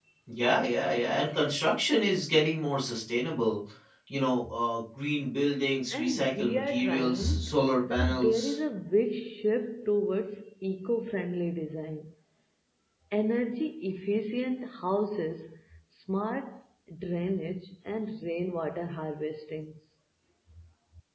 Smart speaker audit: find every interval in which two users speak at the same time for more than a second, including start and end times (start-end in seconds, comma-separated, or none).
5.9-8.6